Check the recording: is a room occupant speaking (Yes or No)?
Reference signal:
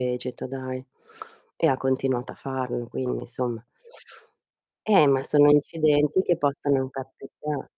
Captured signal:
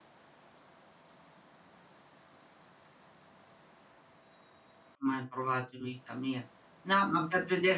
Yes